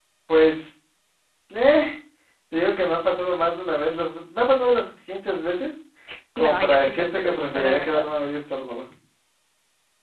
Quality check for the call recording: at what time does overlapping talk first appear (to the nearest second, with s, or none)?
6 s